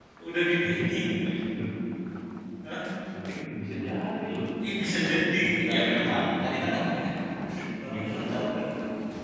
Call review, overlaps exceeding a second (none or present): present